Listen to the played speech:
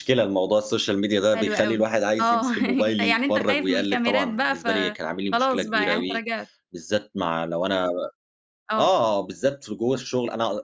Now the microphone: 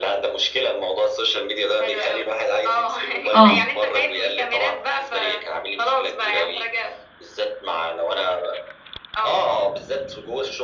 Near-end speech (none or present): present